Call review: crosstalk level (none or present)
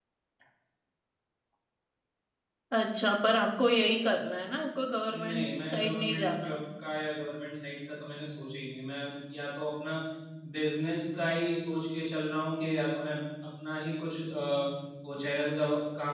present